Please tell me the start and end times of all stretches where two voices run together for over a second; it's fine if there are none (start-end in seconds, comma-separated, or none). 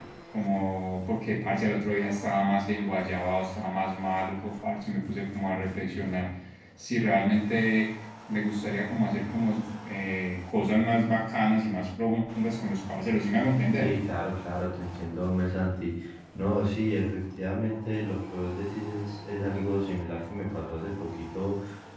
none